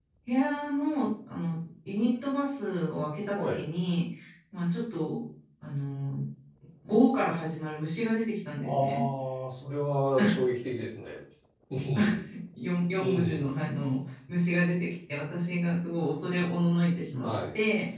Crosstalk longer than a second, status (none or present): none